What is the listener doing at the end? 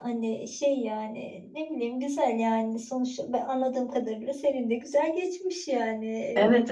taking over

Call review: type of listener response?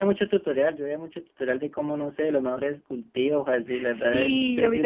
taking over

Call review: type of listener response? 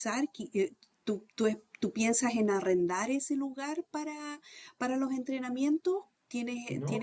taking over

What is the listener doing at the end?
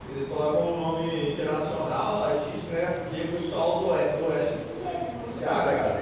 taking over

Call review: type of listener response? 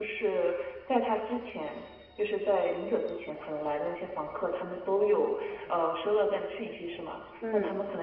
listening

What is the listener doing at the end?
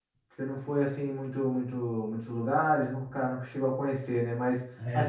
listening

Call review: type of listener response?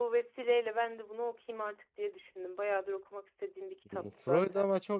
taking over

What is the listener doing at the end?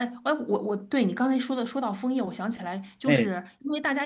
listening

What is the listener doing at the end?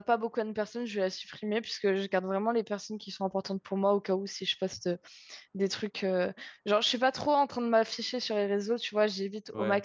listening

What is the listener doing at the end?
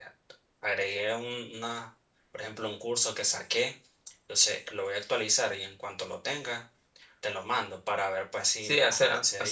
taking over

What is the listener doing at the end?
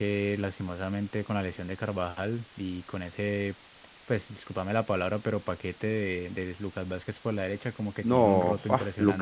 taking over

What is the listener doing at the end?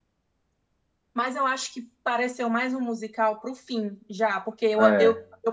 listening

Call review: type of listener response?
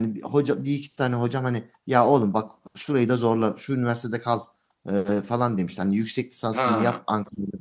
listening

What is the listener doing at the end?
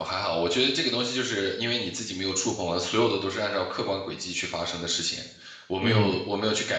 listening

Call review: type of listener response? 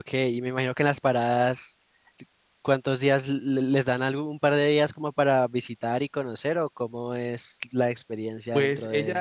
taking over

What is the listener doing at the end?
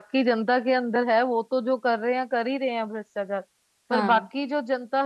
listening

